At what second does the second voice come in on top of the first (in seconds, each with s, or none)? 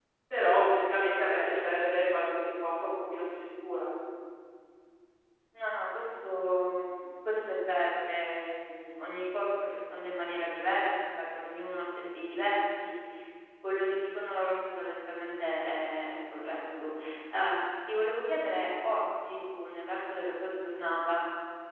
none